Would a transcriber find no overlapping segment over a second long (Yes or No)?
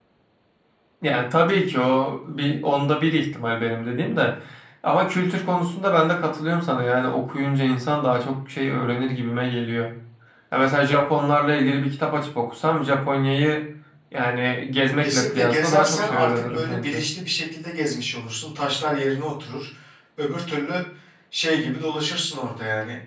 No